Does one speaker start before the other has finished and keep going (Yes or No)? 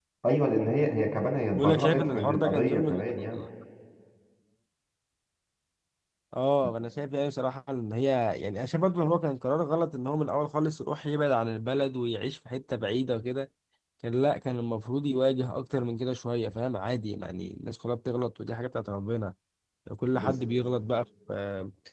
Yes